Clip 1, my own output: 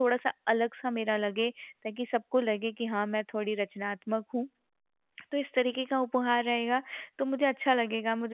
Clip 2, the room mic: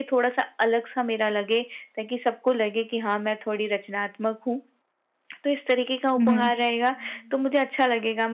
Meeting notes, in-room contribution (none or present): present